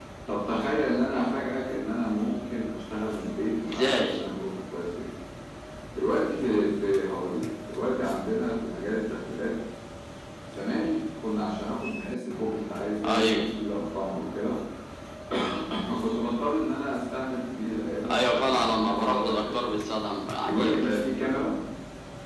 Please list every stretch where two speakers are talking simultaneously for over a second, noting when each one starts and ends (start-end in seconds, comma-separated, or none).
18.1-19.8